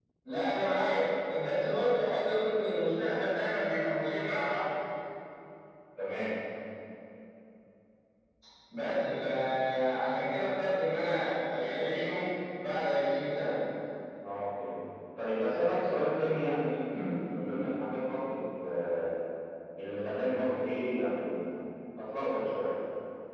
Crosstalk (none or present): none